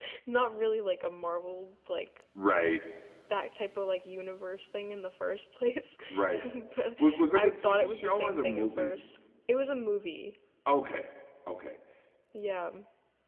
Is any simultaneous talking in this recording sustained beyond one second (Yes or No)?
Yes